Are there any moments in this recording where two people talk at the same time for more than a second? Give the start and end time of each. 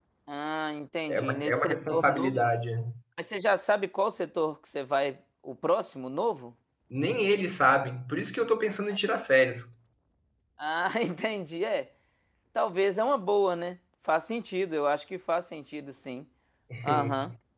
1.1-2.4

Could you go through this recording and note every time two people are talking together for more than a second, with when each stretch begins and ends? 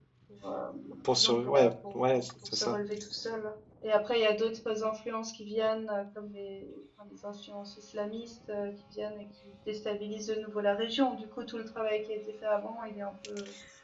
1.1-2.8

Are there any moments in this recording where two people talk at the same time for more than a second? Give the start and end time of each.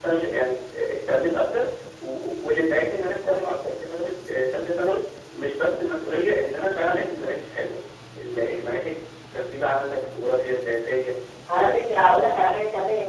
none

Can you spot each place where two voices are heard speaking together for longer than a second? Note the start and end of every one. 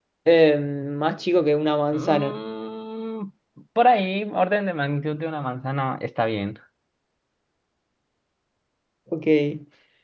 none

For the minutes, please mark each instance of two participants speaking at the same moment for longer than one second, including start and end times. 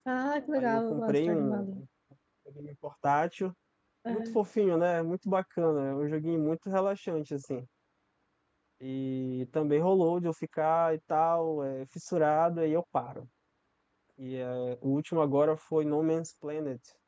0.6-1.8

